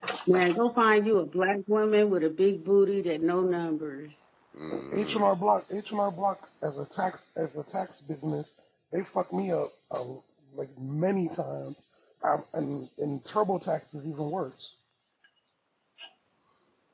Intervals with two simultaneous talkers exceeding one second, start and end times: none

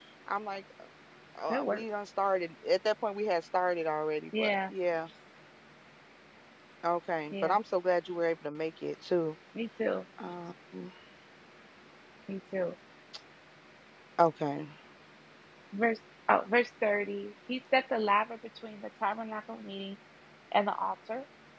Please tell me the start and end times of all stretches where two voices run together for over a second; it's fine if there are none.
none

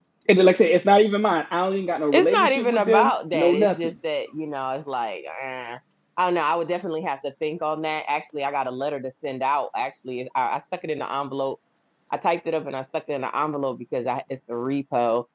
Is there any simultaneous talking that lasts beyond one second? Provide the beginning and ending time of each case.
2.1-3.8

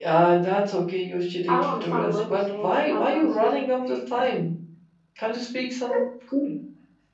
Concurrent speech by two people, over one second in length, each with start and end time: 1.5-3.6

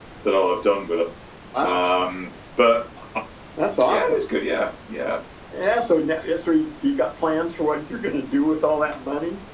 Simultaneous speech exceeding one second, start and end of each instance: none

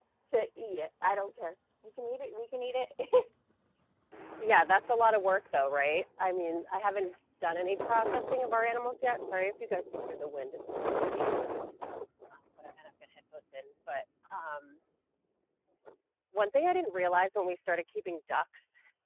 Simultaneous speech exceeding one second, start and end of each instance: none

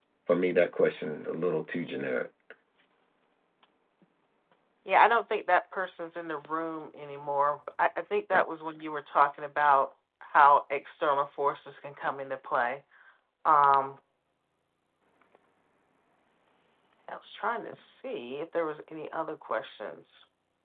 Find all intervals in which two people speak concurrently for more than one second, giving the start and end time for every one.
none

